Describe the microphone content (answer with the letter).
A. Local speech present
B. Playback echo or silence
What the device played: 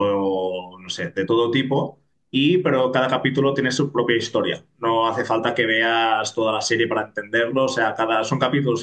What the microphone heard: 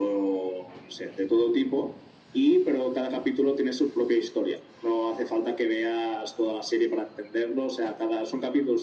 B